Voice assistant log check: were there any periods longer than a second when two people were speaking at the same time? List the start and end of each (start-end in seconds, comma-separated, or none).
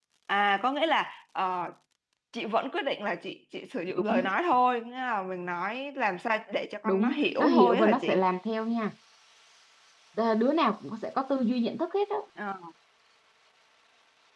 6.8-8.2